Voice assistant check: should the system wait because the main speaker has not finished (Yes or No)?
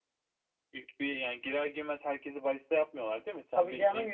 No